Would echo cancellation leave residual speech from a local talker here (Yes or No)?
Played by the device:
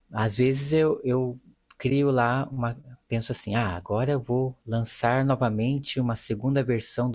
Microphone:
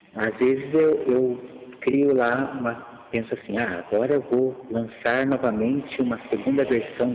No